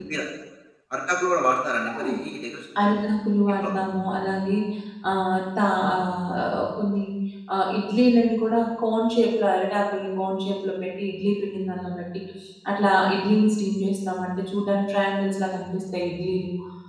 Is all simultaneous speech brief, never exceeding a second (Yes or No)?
Yes